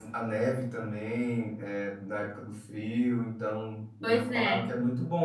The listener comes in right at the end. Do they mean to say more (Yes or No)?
No